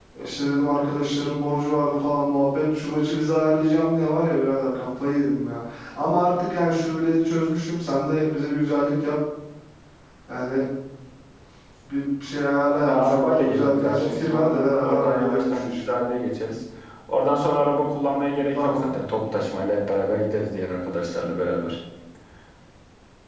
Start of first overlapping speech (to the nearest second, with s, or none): 13 s